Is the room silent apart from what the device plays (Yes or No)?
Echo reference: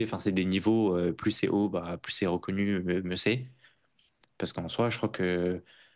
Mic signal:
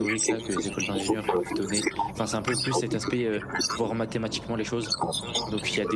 No